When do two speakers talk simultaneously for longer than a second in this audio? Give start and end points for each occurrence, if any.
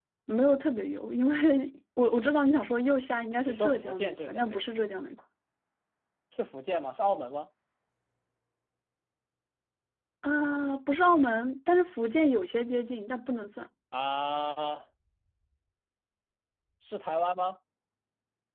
3.5-4.7

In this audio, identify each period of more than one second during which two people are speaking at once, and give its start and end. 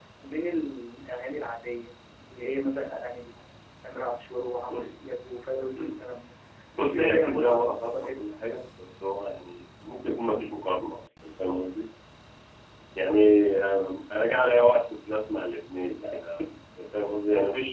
6.8-8.2

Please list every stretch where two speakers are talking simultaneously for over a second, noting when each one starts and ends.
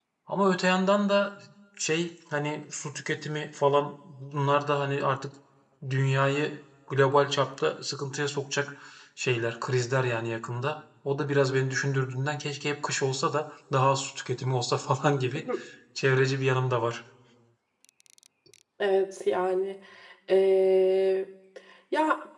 none

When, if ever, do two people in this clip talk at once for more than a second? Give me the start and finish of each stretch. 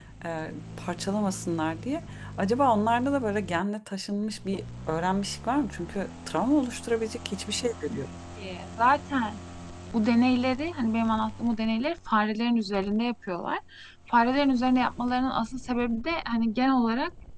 none

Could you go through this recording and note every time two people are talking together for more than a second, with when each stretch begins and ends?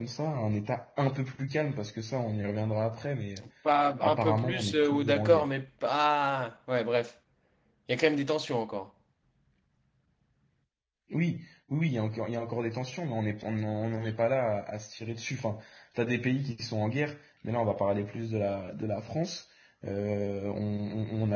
4.0-5.5

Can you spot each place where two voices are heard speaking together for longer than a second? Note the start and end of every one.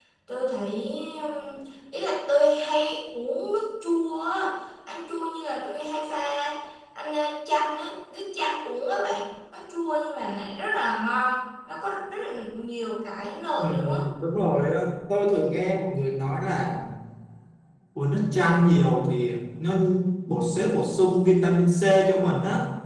none

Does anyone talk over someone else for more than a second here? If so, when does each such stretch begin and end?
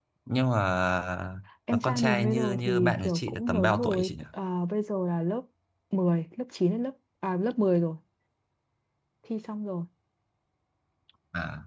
1.7-4.2

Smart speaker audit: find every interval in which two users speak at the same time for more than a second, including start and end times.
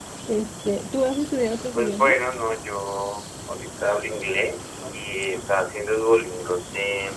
none

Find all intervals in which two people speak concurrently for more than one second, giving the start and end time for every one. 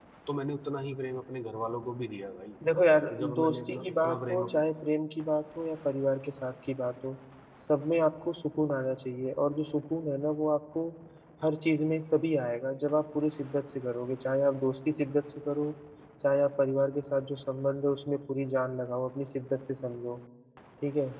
3.1-4.4

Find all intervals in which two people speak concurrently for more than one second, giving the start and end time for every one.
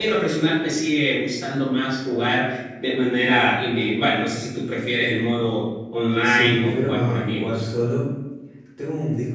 6.2-7.6

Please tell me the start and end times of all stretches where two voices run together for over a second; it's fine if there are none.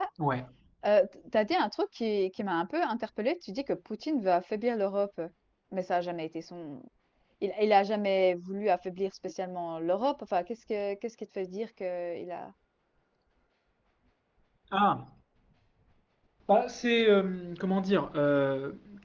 none

